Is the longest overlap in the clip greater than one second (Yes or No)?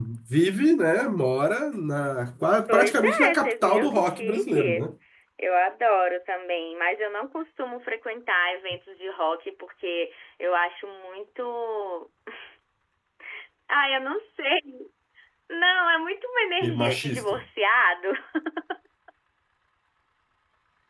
Yes